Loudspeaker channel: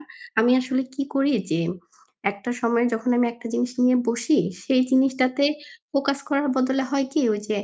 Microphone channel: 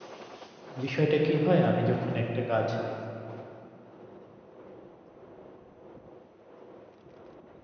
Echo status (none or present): none